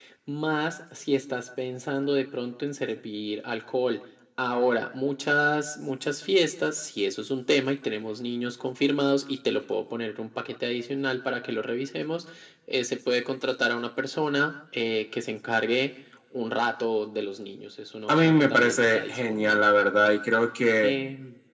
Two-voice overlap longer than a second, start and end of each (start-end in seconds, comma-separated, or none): 18.1-19.7